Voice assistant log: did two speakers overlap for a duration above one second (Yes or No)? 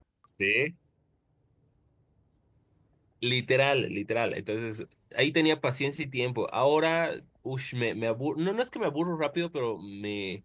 No